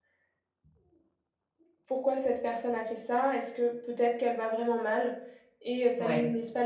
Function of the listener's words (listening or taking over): listening